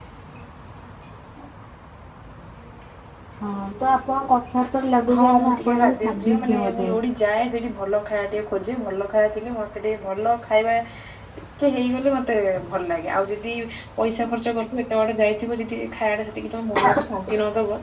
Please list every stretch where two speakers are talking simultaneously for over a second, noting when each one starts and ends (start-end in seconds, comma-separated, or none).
5.1-6.9